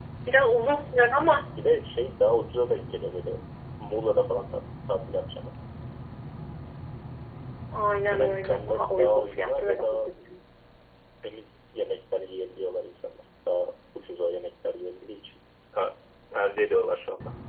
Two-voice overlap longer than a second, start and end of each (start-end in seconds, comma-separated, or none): 8.1-10.1